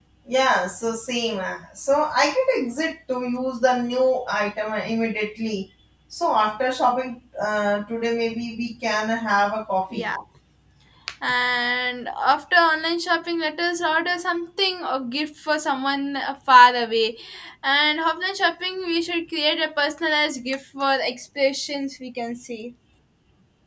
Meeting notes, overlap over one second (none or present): none